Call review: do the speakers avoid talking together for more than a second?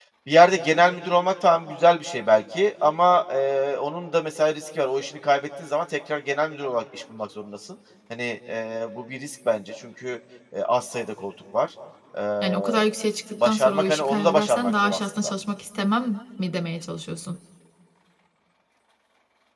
No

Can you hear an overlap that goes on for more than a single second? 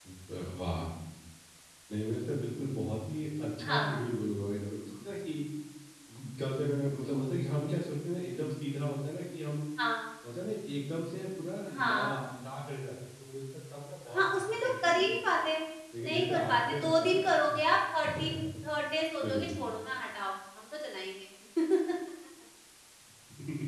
Yes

